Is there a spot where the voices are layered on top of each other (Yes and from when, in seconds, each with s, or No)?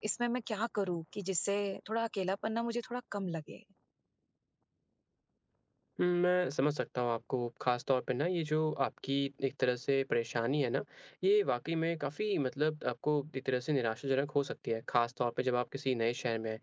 No